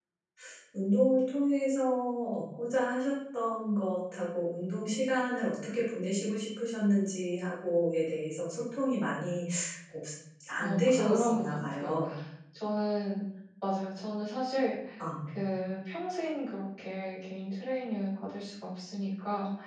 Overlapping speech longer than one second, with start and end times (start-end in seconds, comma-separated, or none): 10.6-11.9